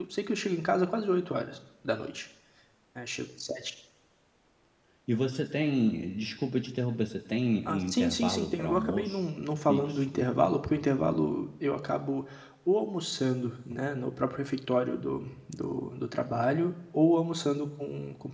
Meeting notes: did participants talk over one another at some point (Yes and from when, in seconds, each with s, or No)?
Yes, from 7.6 s